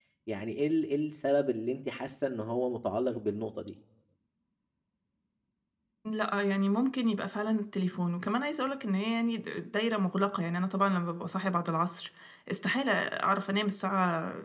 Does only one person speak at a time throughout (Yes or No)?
Yes